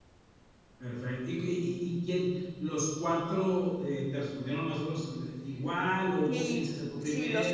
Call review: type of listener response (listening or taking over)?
taking over